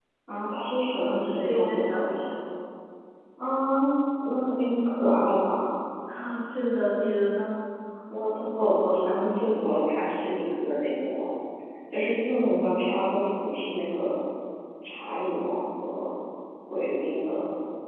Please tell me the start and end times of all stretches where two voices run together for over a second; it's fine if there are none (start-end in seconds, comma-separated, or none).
0.9-2.3